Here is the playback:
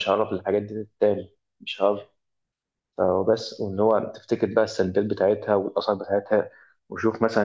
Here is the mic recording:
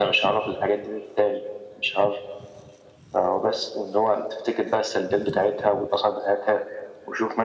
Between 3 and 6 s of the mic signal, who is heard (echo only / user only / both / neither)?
echo only